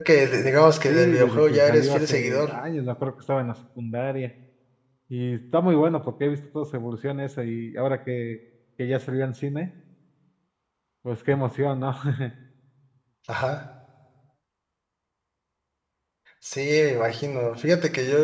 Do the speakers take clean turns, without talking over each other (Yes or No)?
No